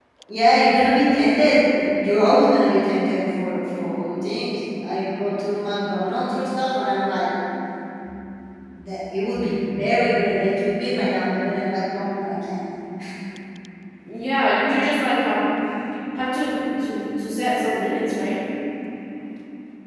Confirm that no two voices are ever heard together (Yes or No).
Yes